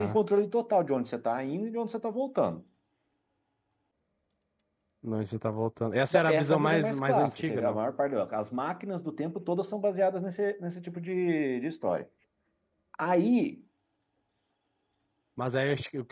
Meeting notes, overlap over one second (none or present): present